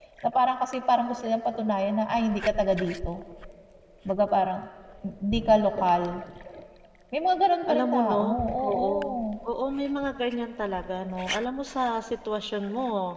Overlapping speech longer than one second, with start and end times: 7.7-8.9

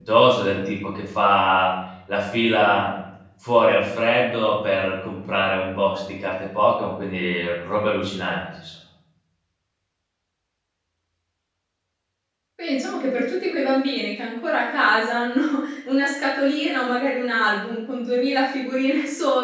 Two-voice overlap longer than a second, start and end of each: none

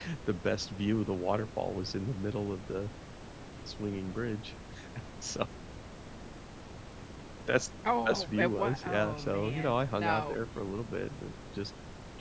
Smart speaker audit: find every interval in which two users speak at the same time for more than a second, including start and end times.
8.1-10.4

